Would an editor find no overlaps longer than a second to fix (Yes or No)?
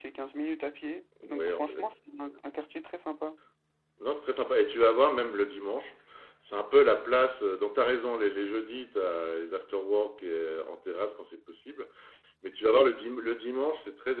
Yes